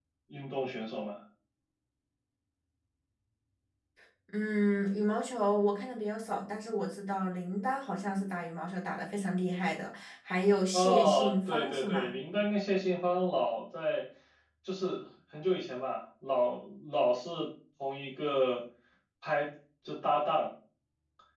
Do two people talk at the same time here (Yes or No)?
Yes